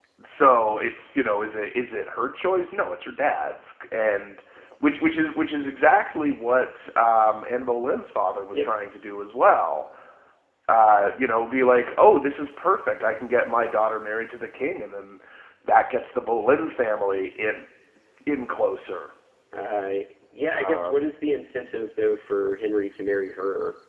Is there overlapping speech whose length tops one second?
No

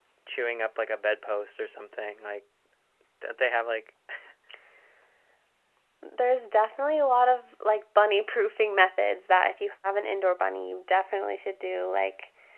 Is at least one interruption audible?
No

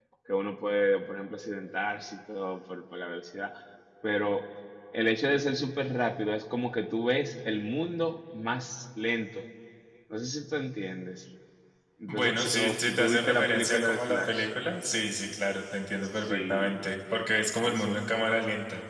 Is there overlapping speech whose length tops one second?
Yes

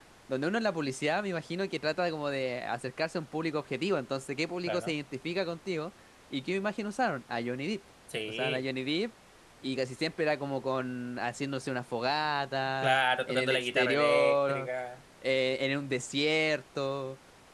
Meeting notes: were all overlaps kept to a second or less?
No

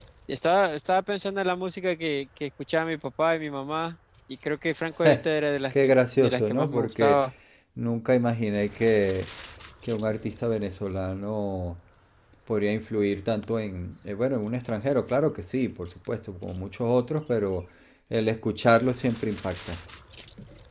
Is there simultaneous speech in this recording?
Yes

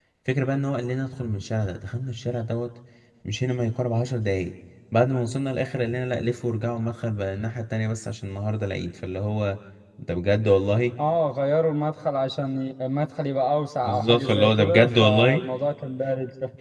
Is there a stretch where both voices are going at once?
Yes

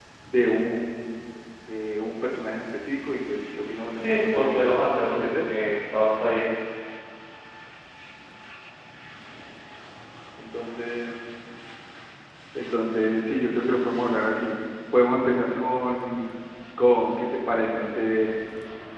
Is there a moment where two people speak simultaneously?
Yes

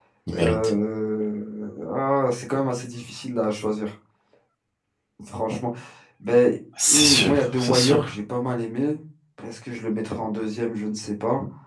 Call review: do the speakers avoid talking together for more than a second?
No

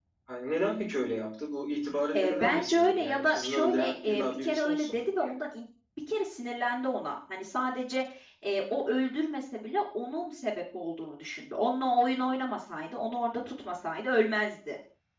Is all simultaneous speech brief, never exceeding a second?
No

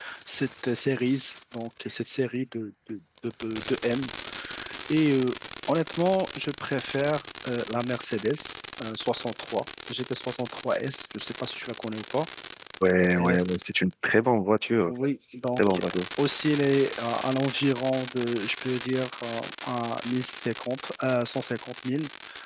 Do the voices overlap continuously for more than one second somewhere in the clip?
No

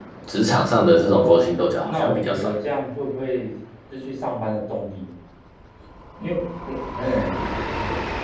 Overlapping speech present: Yes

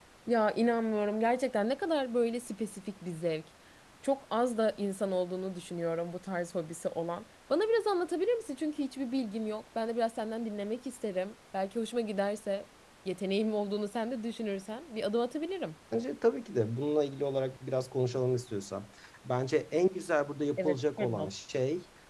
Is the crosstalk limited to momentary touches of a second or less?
Yes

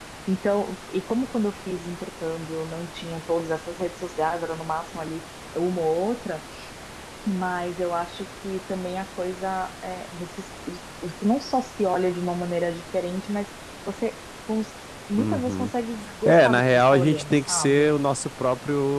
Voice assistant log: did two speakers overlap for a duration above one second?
Yes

